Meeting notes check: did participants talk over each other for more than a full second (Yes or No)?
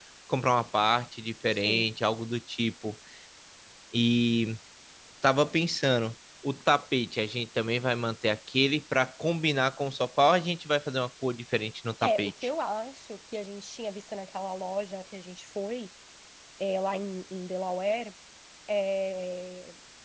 No